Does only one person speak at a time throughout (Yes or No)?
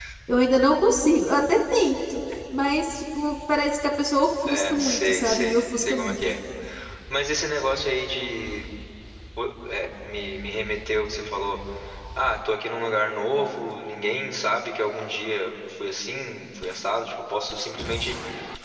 No